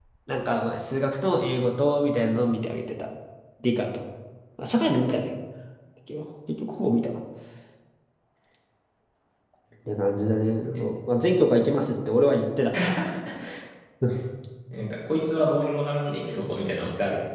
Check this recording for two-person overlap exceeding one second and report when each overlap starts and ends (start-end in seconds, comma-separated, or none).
none